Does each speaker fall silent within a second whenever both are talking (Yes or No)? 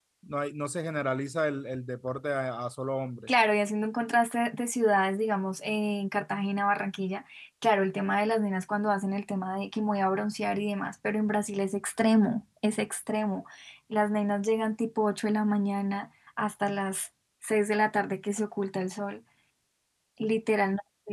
Yes